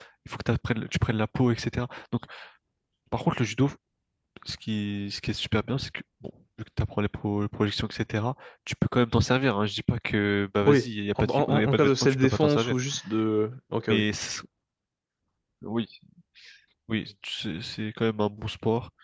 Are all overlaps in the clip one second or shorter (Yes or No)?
No